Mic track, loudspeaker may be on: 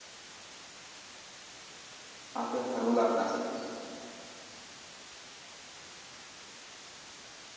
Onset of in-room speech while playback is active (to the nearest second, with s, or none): 2 s